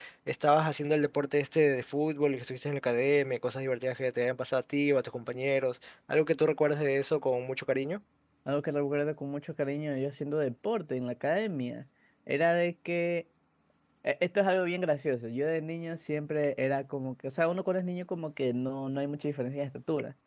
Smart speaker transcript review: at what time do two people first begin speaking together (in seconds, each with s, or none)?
none